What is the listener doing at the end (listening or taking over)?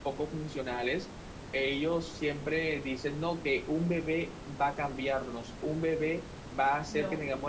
listening